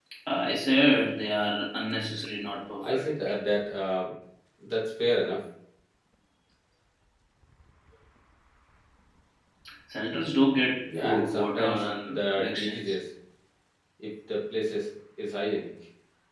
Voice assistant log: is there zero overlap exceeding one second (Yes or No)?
No